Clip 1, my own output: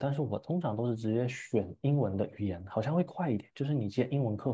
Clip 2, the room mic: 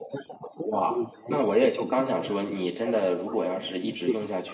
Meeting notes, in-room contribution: present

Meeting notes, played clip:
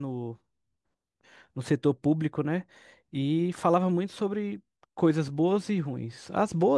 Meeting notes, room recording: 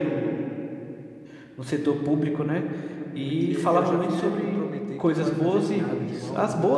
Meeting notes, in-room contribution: present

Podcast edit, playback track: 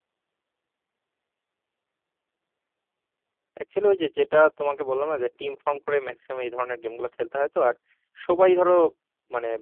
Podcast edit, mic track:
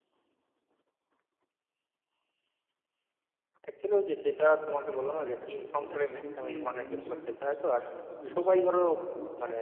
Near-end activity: present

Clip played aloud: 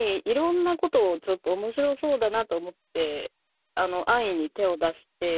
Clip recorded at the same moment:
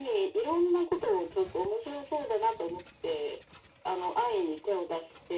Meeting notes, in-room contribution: none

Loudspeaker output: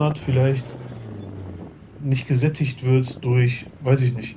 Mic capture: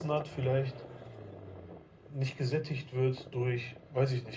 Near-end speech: none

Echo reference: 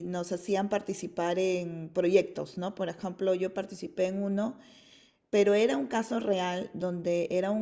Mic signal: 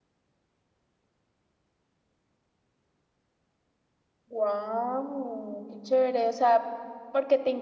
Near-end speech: present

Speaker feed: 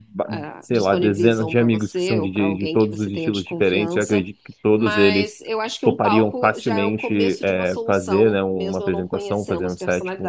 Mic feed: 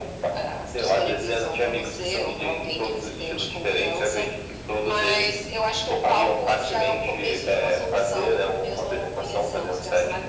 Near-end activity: none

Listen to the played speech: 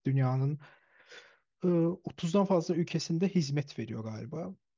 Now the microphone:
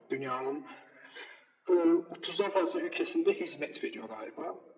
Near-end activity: none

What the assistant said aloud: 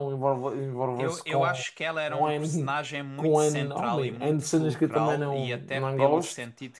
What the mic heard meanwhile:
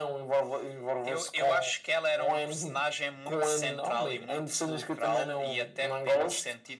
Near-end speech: none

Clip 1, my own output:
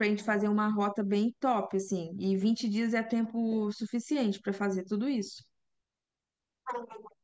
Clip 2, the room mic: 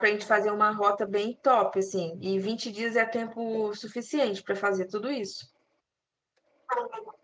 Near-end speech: none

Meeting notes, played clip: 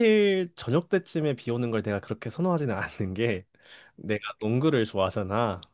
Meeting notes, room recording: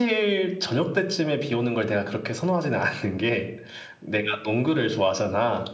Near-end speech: none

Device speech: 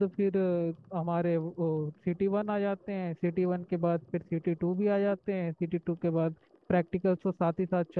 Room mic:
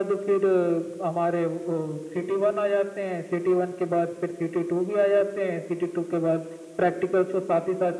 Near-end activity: none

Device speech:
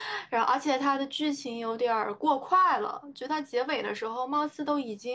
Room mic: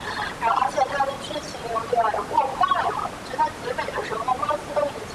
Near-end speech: none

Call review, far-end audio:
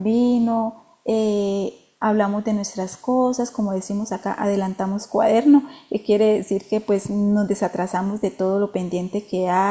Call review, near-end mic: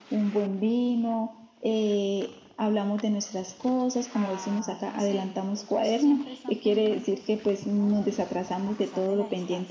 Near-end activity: present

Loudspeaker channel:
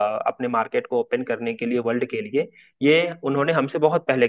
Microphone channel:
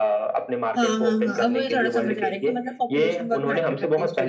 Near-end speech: present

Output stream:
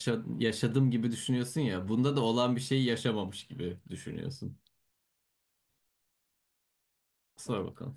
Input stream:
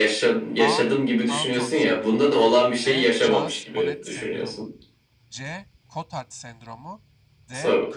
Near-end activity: present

